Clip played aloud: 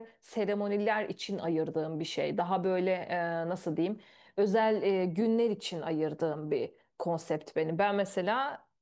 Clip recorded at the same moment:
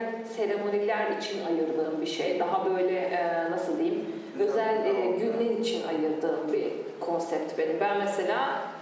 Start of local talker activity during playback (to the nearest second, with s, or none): 4 s